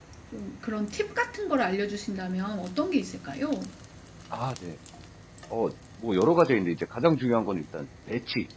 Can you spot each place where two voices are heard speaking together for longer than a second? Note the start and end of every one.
none

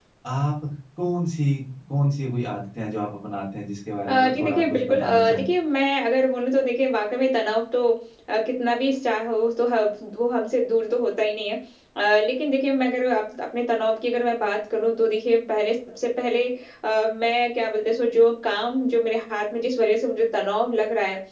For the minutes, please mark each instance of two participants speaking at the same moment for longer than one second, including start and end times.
4.1-5.5

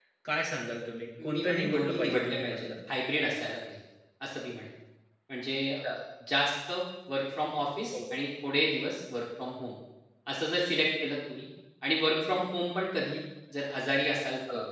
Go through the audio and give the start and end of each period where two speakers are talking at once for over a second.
1.2-2.7

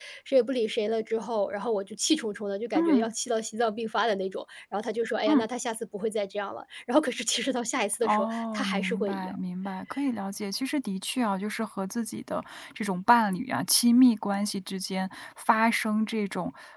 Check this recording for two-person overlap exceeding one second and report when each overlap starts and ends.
8.0-9.3

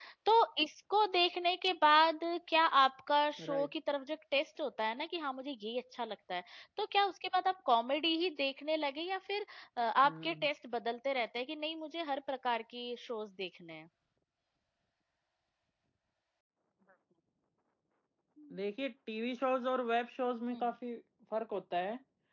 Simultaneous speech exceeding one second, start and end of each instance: none

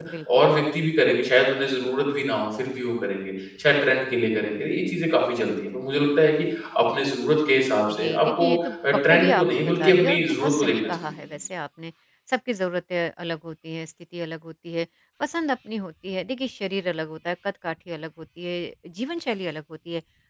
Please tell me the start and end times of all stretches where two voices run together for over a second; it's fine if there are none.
7.9-11.1

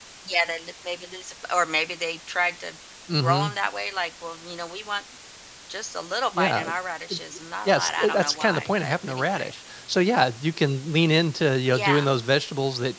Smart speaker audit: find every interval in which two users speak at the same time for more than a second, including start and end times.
7.7-9.5

